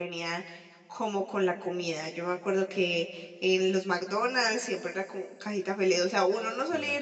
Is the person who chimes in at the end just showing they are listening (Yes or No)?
Yes